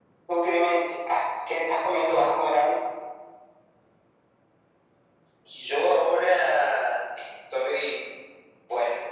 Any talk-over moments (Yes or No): No